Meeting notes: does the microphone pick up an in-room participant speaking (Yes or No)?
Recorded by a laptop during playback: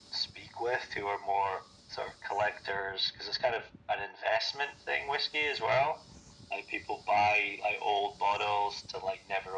No